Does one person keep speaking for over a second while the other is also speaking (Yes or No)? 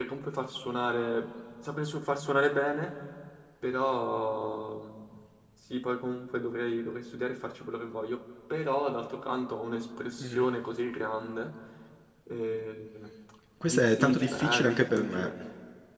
Yes